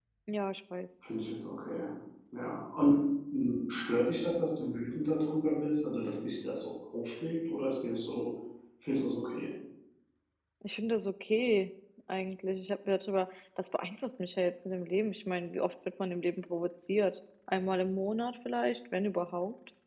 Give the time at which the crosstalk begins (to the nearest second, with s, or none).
none